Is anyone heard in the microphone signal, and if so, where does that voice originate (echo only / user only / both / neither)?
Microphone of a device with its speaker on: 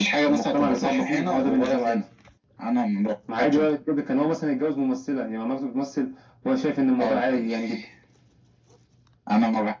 echo only